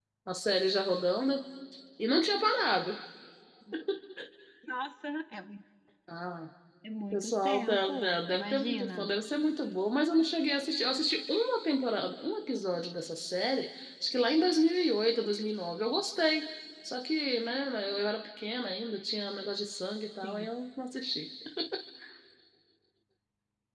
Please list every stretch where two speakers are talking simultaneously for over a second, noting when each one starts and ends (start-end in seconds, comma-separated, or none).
7.1-9.1